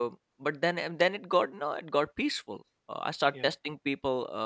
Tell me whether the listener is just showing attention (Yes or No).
Yes